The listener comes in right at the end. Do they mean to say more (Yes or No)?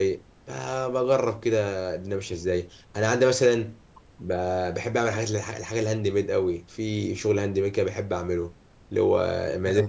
No